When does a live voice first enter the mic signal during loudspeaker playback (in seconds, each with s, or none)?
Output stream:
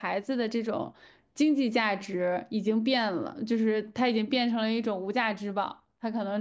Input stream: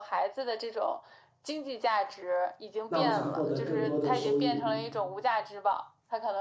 2.9 s